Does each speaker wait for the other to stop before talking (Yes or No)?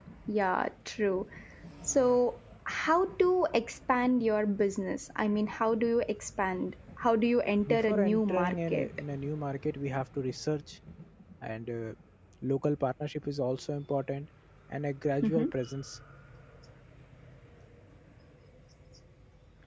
No